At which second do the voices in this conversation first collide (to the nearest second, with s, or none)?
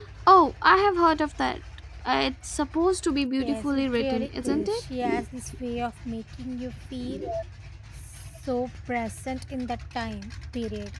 3 s